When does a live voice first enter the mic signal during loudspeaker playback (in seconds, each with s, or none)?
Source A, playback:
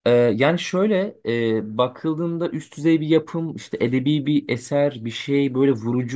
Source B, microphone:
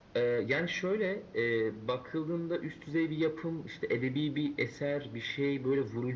none